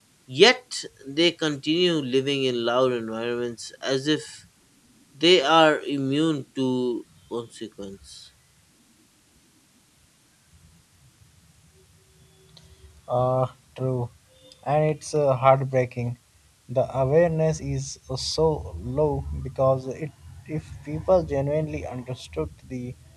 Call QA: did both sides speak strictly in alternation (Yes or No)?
Yes